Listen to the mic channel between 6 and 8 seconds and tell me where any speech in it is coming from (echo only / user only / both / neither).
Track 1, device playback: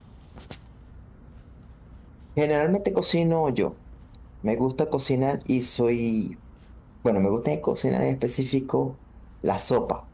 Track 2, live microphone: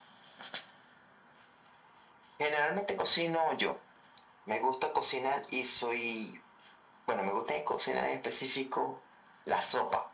echo only